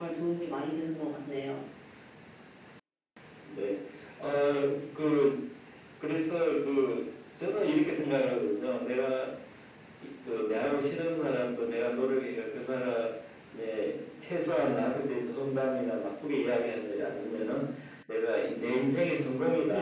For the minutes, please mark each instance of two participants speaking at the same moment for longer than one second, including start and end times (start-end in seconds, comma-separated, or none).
none